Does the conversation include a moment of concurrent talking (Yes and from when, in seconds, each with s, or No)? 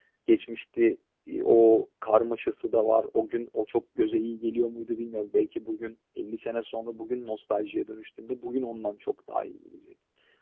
No